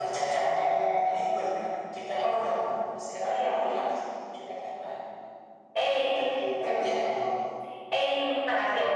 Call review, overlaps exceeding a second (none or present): none